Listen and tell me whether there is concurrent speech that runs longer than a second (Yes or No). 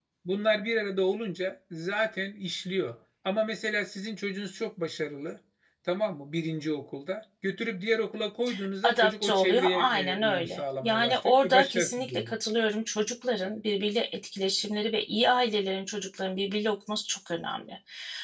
Yes